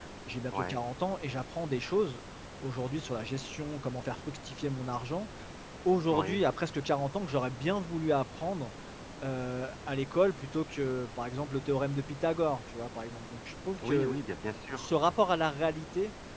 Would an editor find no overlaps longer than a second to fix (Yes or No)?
Yes